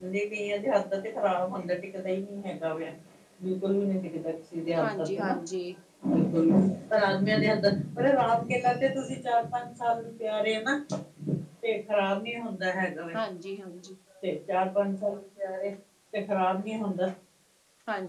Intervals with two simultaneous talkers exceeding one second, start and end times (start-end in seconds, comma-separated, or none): none